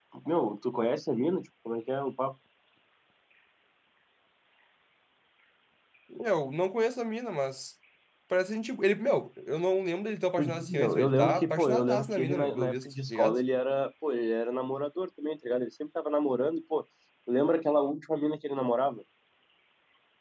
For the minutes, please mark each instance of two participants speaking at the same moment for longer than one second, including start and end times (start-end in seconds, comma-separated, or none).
10.4-13.4